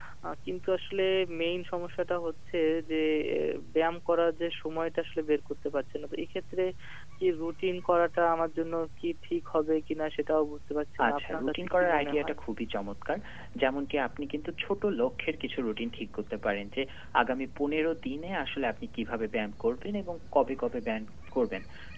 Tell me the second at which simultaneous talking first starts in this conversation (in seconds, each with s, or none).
11.0 s